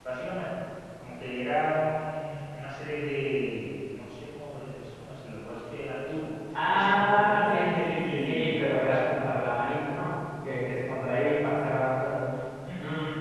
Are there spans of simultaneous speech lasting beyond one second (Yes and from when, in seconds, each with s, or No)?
Yes, from 6.5 s